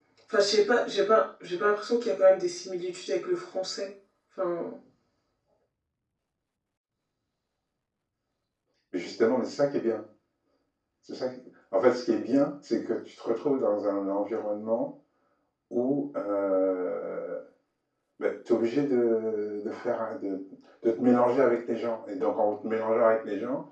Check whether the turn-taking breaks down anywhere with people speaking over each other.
No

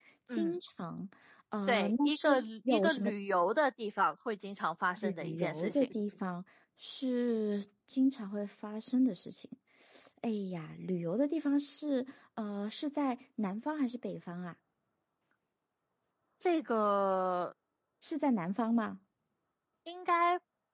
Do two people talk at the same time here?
Yes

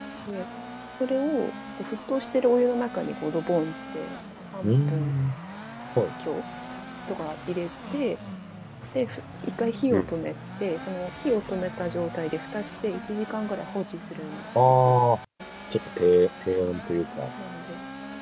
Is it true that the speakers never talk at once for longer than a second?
Yes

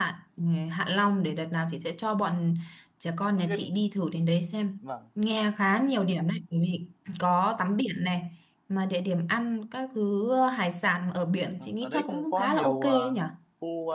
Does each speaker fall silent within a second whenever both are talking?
No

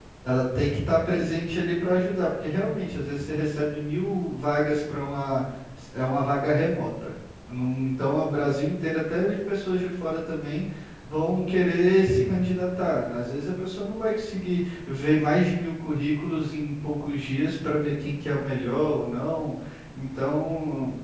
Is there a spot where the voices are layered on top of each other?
No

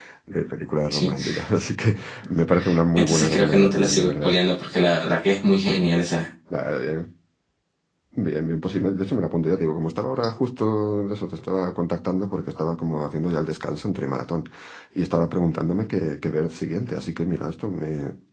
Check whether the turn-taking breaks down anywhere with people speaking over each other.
Yes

